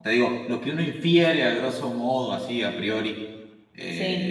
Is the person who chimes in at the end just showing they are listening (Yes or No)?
Yes